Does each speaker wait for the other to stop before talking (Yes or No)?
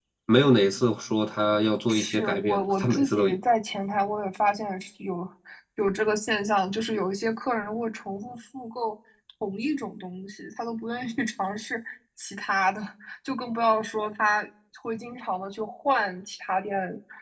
No